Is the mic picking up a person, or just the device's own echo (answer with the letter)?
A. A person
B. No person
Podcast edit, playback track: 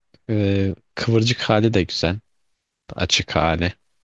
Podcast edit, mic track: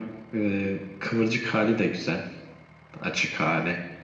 B